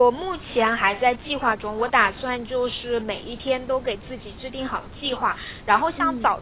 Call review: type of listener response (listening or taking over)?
listening